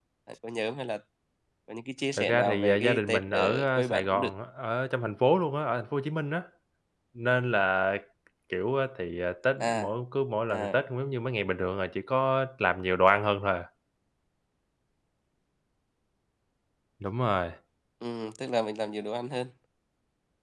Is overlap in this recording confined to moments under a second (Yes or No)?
No